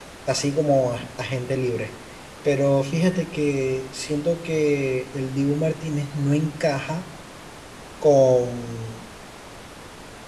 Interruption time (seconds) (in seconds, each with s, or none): none